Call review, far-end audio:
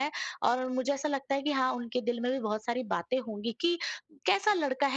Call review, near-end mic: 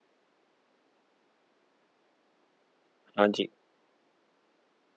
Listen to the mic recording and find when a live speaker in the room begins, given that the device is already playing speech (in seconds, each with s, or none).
3.2 s